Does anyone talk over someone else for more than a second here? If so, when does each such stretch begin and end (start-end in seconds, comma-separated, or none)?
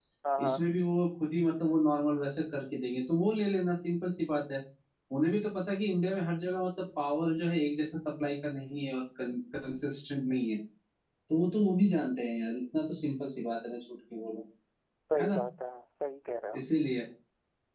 none